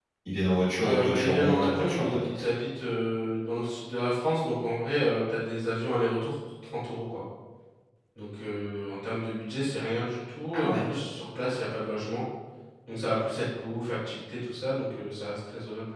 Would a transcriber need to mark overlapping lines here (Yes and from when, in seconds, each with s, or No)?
Yes, from 0.8 s